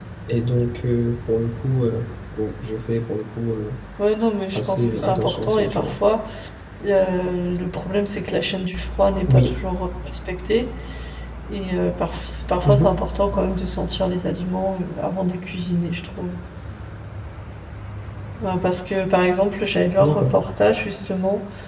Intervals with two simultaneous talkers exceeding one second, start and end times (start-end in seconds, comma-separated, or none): 4.5-5.9